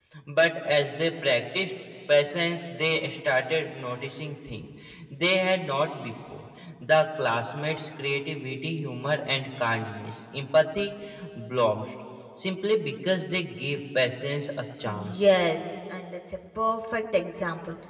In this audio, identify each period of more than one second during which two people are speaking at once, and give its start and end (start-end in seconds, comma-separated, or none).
none